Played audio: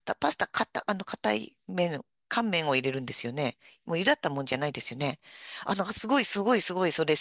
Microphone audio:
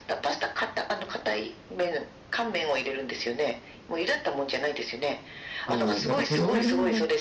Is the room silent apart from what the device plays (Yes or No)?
No